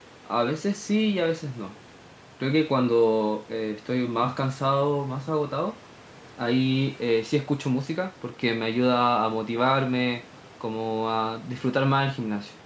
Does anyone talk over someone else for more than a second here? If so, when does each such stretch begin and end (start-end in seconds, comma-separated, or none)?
none